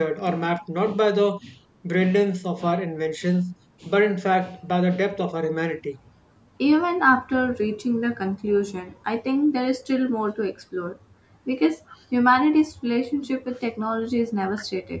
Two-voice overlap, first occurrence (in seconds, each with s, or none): none